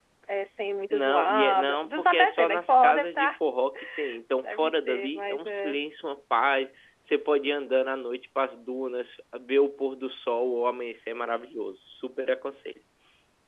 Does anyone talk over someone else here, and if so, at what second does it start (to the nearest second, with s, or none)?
1 s